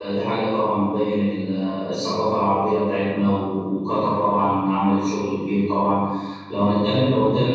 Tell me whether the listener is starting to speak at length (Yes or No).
No